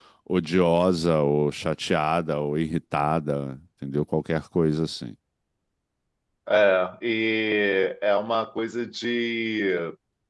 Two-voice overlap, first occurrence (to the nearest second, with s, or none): none